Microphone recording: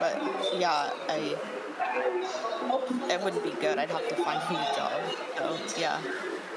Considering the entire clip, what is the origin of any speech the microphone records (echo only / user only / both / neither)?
both